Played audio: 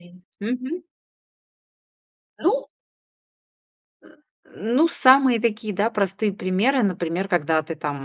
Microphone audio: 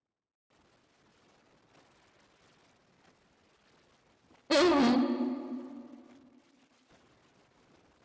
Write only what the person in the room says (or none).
Мгм.